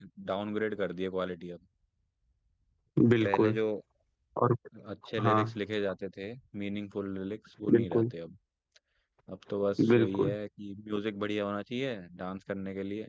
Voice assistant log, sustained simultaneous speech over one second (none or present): none